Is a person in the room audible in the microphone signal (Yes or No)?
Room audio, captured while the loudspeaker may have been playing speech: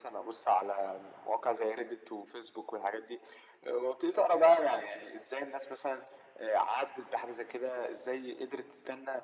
No